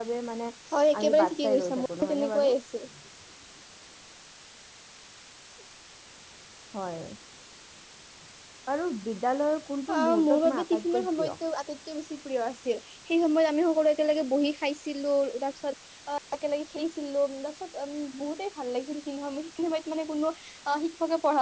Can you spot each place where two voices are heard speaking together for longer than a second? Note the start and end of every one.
1.0-2.5, 9.9-11.3

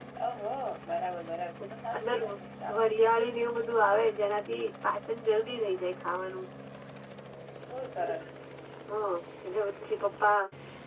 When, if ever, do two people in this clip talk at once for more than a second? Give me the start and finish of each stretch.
none

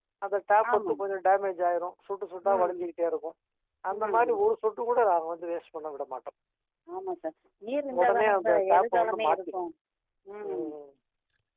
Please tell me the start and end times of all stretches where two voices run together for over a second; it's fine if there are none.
8.0-9.6

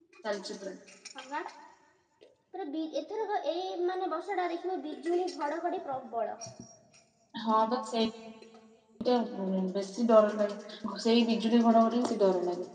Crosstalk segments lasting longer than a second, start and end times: none

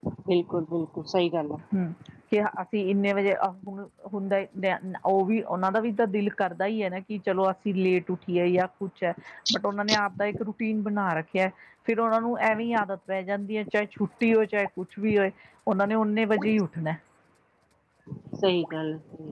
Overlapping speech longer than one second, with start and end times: none

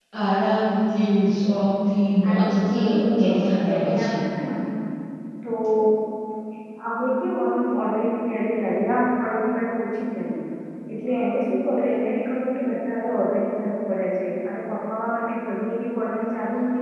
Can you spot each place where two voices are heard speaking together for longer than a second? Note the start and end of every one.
2.3-4.1

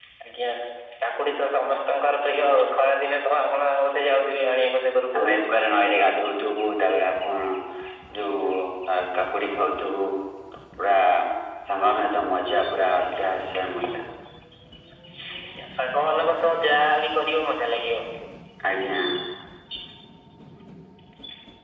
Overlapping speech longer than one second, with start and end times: none

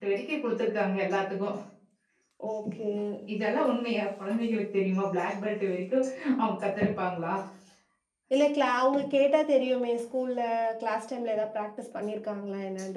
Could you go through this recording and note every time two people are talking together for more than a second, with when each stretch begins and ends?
none

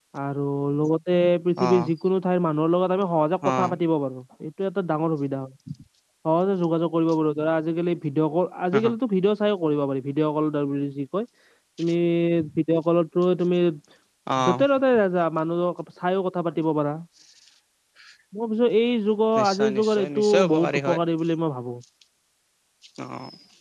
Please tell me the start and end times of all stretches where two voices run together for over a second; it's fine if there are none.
19.4-21.0

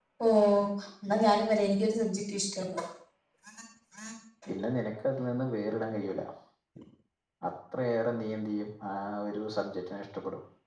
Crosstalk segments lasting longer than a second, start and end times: none

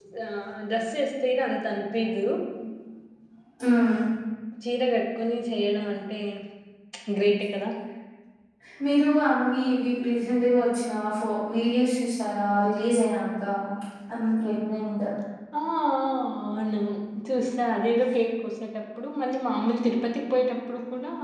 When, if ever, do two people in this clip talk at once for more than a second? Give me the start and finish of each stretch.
none

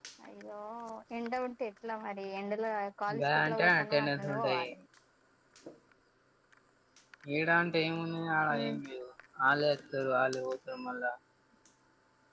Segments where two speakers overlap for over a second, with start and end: 3.1-4.7

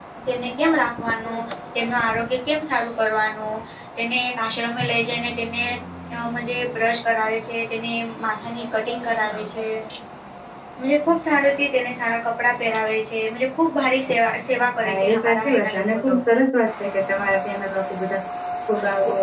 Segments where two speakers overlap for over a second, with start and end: 14.8-16.1

